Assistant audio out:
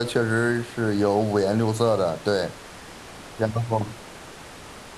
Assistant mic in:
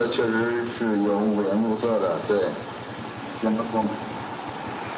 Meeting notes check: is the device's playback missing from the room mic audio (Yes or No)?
No